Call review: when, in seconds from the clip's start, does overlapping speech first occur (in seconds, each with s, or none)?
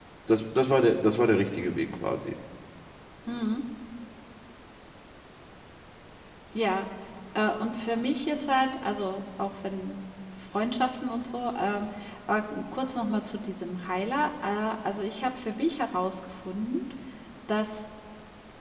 none